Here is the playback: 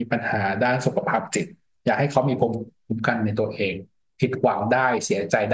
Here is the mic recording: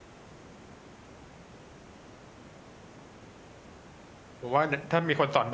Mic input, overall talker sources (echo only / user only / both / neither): user only